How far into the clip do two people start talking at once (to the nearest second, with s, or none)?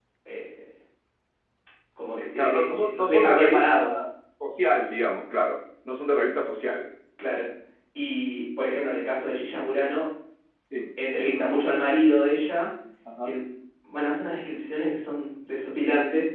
2 s